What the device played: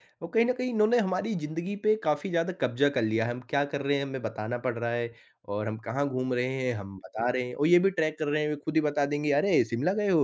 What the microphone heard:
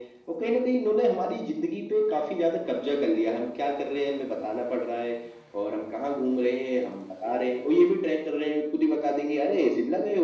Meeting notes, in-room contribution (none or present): none